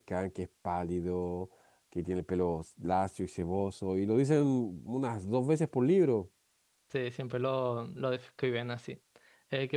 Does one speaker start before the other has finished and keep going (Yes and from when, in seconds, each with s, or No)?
No